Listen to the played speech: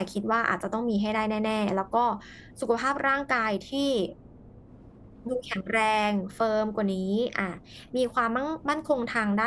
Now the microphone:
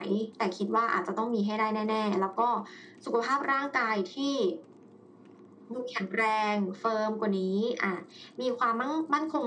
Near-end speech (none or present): none